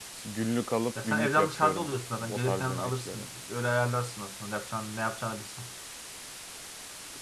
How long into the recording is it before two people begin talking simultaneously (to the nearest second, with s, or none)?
1 s